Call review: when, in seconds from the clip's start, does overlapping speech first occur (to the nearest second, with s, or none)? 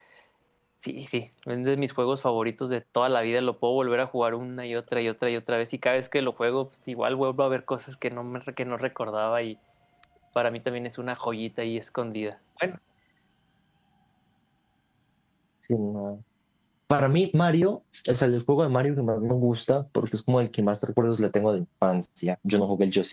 none